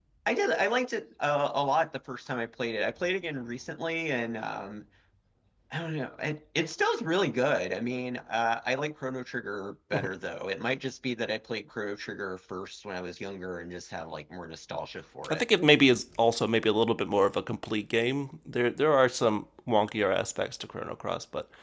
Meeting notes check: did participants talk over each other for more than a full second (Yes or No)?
No